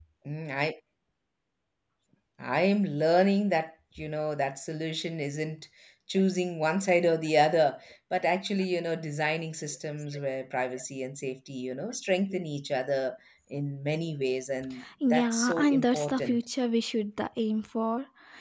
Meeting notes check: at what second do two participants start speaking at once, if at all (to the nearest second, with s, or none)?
15 s